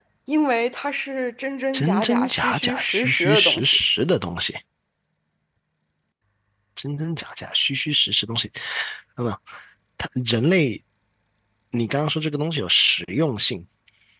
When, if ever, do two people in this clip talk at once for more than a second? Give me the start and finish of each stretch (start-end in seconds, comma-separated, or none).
1.7-3.8